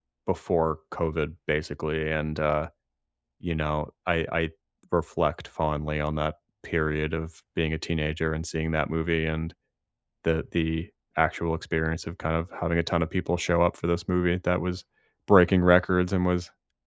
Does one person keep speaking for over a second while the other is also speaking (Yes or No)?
No